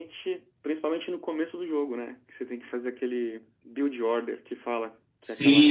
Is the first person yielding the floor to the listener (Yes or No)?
Yes